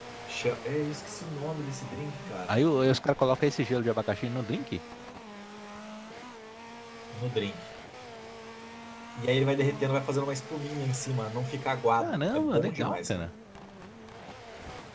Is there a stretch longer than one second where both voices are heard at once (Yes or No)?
Yes